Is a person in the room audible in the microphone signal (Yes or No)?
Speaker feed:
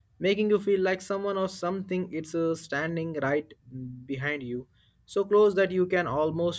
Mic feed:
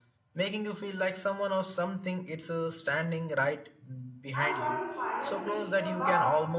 Yes